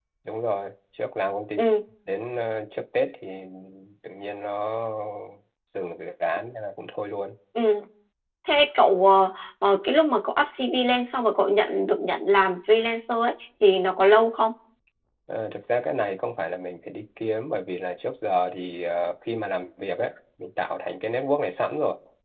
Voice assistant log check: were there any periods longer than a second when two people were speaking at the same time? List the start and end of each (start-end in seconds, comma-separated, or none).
none